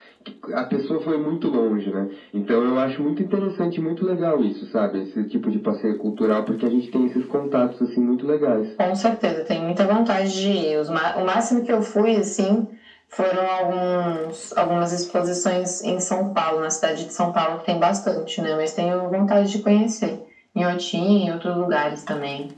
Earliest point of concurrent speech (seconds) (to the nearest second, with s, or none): none